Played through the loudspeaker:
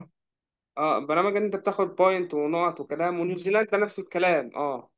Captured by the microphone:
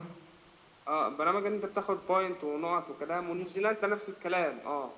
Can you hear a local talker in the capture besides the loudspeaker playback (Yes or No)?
No